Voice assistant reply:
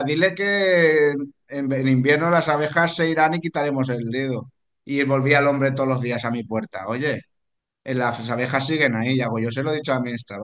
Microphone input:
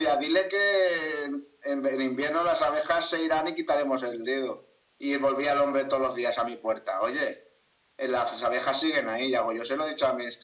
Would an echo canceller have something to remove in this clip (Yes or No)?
Yes